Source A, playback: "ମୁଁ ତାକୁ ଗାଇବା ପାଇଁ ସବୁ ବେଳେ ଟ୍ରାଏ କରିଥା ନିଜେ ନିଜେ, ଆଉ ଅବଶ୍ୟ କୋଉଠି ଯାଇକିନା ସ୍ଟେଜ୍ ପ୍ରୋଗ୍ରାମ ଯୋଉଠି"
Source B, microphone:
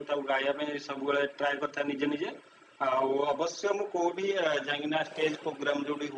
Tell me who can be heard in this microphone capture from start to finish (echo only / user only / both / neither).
echo only